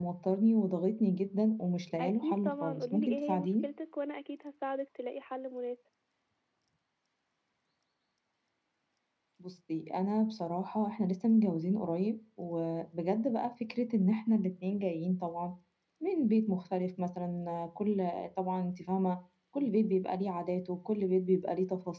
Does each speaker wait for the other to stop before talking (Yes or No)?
No